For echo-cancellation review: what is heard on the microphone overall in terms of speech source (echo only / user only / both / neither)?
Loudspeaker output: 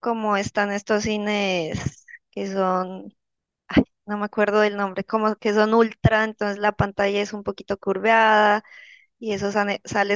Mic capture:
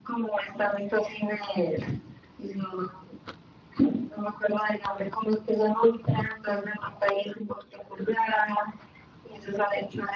echo only